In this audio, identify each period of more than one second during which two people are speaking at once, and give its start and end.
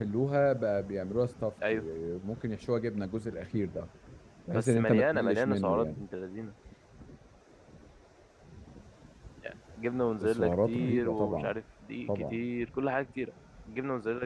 4.5-6.0, 10.2-11.5

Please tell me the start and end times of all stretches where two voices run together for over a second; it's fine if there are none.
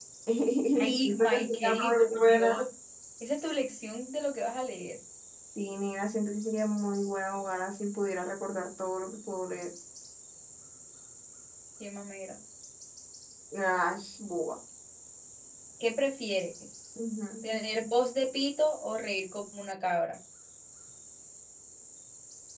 0.8-2.6

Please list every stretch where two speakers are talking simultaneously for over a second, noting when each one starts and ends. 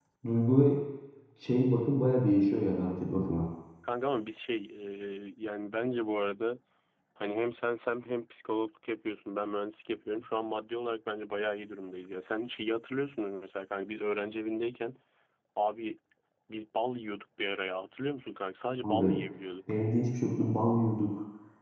none

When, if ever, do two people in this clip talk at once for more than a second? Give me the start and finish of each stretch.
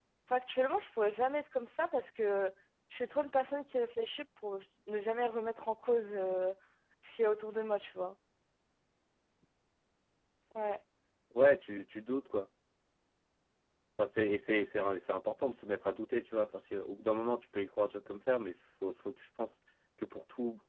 none

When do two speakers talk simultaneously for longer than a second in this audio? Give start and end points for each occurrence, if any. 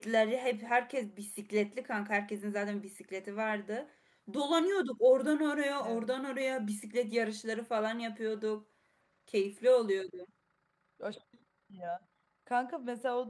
none

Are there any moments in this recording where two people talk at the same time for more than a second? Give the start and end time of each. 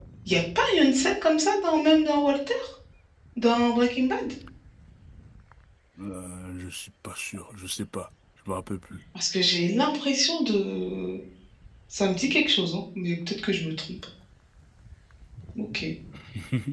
none

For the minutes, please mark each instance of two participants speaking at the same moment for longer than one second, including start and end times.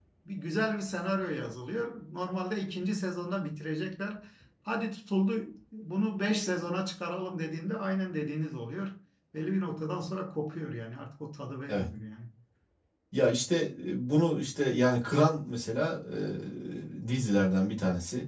none

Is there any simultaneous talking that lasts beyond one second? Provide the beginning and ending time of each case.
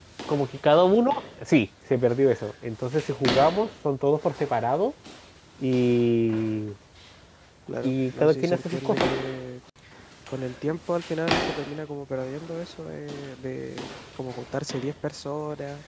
7.8-9.1

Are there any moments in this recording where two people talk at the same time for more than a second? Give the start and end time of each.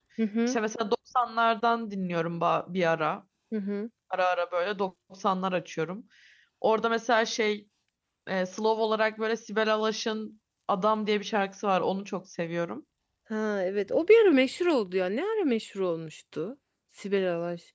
none

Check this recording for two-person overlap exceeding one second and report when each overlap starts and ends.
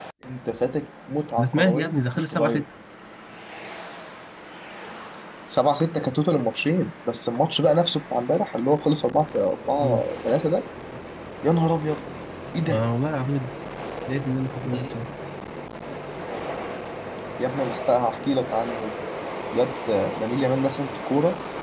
1.4-2.6

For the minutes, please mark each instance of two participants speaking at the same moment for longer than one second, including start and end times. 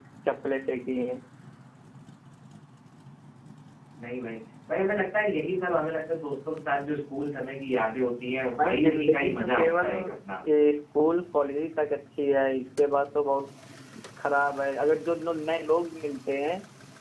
8.6-9.9

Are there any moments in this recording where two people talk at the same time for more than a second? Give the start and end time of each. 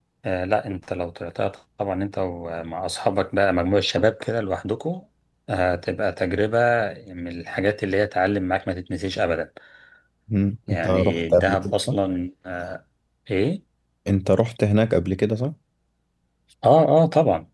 10.7-11.9

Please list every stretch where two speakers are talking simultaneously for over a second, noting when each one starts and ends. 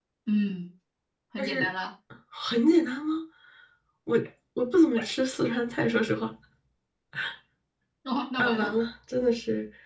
none

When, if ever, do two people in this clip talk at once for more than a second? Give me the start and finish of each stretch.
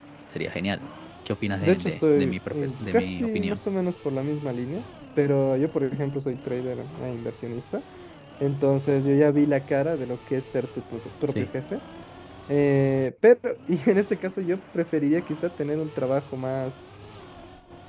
1.6-3.6

